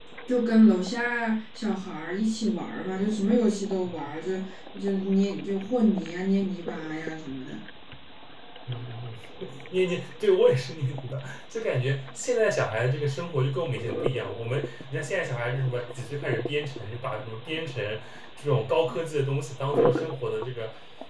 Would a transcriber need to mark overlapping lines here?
No

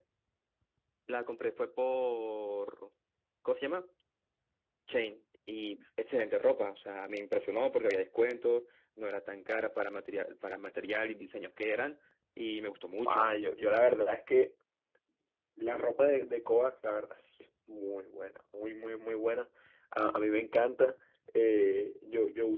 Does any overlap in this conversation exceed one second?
No

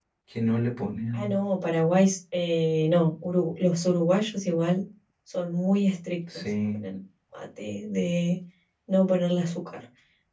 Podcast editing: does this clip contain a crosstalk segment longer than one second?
No

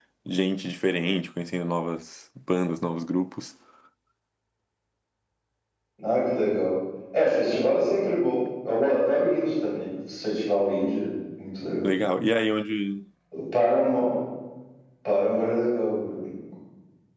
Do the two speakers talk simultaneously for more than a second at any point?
No

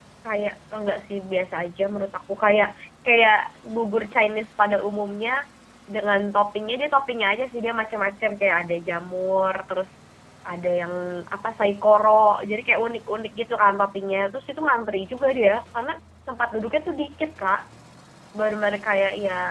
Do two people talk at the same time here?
No

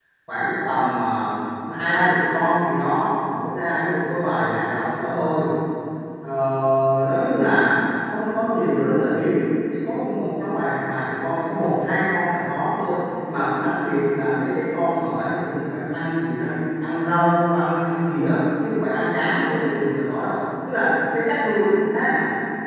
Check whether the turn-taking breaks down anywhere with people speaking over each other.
No

